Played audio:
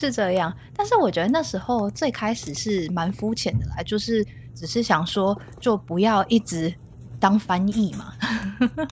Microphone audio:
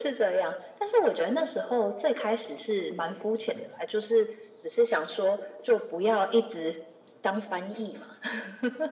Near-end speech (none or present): none